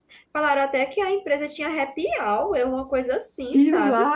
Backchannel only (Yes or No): No